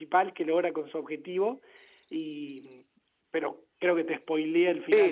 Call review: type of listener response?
taking over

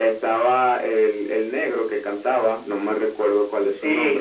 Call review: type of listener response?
taking over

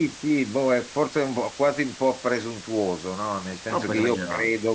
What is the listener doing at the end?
listening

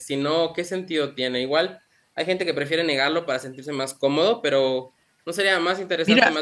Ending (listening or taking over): taking over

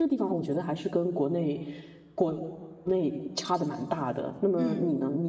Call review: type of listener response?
listening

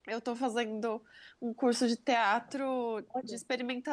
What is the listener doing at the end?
listening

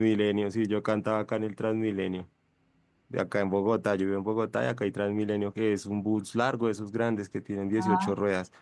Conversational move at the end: listening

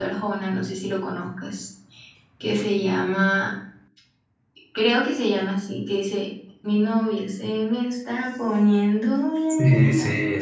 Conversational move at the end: taking over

